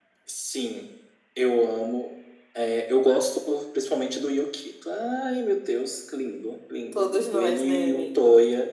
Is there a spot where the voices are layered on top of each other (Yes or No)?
Yes